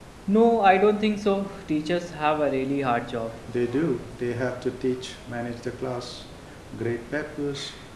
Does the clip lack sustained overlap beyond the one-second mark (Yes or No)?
Yes